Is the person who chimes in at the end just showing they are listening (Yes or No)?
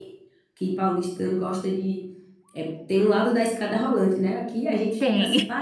Yes